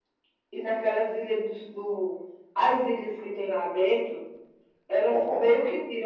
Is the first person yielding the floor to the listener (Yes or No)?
No